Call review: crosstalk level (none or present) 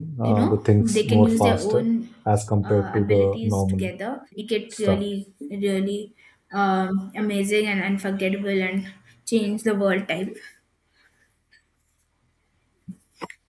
present